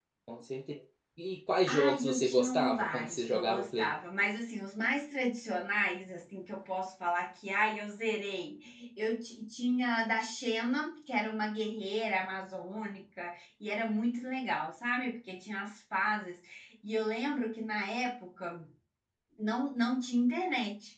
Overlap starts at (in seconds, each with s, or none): 1.7 s